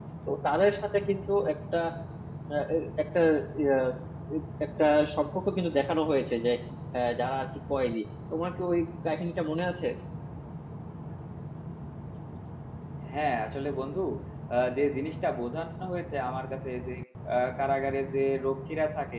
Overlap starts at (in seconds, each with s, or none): none